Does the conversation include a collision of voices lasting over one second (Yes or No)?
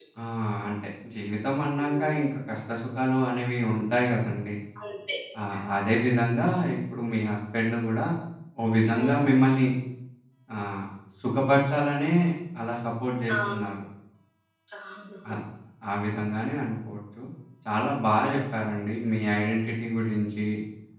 No